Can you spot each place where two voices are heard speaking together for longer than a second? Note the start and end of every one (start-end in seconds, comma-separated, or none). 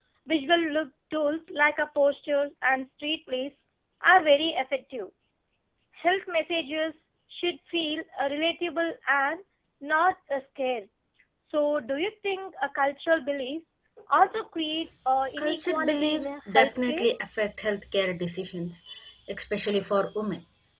15.4-17.1